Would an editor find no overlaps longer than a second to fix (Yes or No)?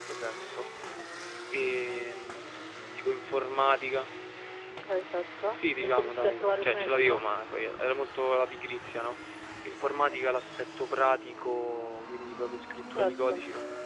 No